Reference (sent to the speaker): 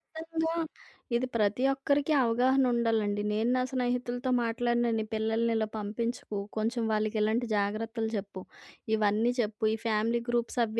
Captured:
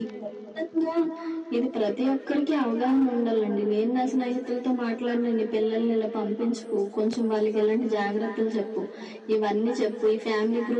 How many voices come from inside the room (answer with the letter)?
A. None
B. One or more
A